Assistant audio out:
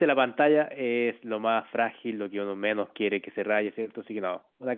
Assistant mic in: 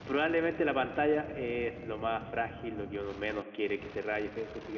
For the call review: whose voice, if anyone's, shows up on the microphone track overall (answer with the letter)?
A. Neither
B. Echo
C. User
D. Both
B